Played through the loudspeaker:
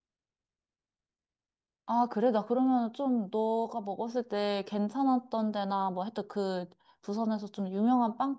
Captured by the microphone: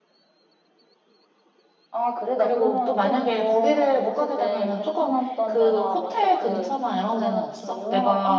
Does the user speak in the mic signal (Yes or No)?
Yes